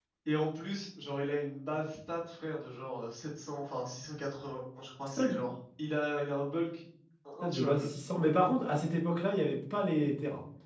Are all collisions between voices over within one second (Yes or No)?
Yes